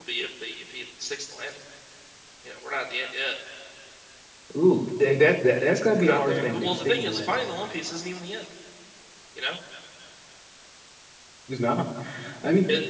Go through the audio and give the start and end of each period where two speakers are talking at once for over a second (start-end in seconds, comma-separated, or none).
6.0-7.4